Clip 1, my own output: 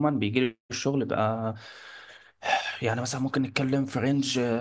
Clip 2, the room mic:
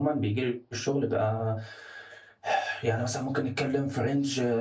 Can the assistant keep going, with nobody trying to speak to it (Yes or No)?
Yes